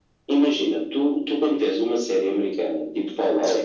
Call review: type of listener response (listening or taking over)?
listening